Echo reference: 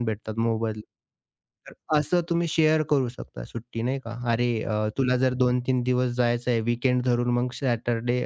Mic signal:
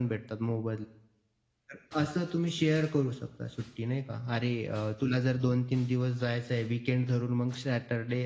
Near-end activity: none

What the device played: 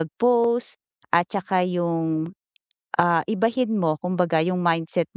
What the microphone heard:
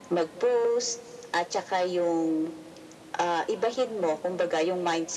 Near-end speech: none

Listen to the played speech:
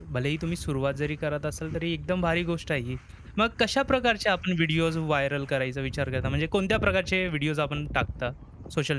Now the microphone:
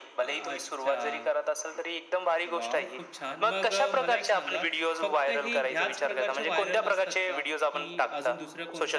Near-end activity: present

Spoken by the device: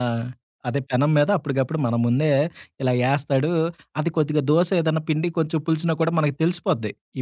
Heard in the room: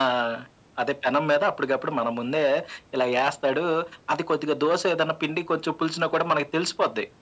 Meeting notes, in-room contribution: none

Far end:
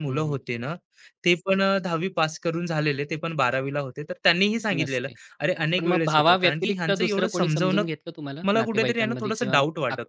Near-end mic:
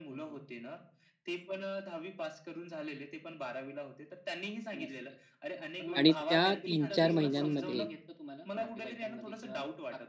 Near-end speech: present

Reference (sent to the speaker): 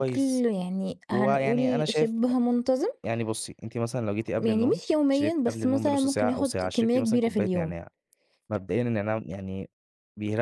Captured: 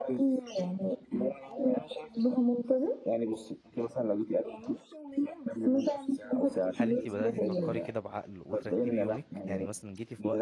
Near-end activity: present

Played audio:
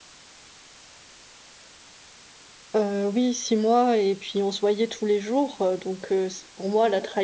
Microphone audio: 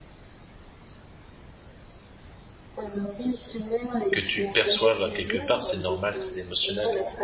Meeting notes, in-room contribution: present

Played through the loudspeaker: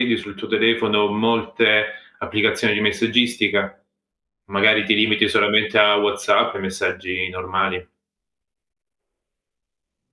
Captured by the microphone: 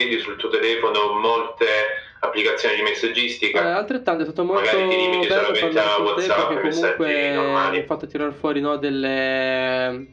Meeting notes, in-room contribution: present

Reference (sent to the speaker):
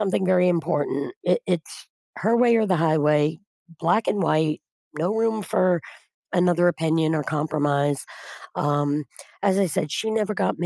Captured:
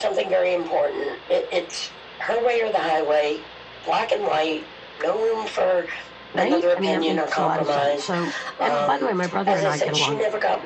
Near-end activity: present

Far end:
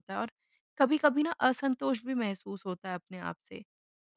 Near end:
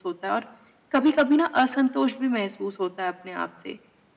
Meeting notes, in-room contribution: none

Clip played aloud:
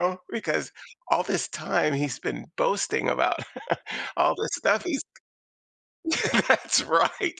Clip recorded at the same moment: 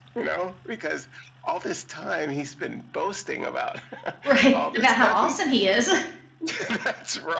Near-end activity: present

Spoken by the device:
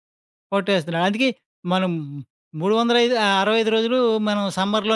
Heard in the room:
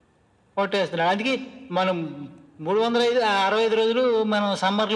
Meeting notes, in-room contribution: none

